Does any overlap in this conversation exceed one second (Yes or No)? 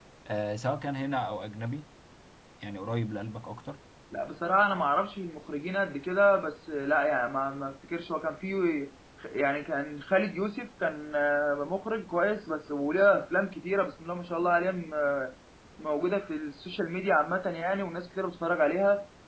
No